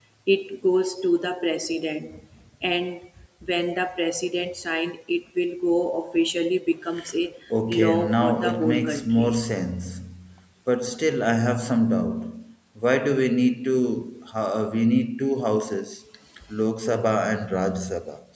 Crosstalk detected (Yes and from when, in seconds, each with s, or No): Yes, from 7.7 s